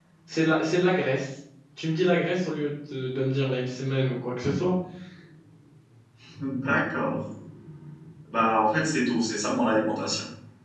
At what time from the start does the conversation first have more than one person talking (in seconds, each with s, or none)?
none